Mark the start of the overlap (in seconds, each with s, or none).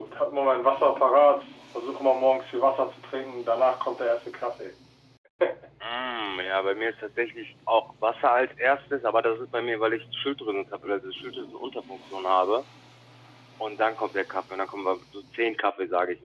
none